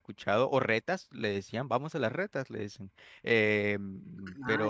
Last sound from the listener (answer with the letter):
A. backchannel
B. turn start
A